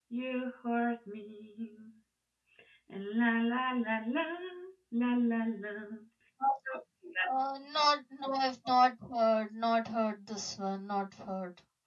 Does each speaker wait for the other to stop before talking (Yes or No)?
Yes